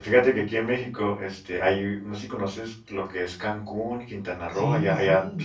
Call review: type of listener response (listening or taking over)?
listening